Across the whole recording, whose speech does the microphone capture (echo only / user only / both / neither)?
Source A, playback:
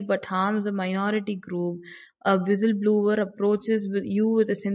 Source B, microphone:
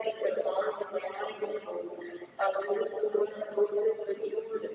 echo only